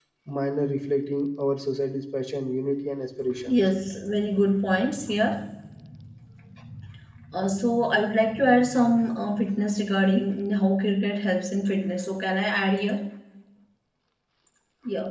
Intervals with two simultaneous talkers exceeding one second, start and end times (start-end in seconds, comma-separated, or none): none